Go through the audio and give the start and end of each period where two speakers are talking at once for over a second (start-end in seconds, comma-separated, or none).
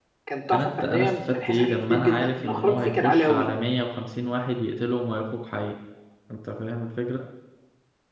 0.5-3.5